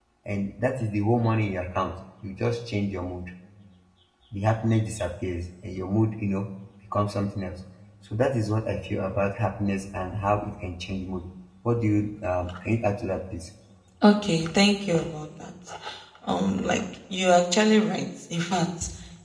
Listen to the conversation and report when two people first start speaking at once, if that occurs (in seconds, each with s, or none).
none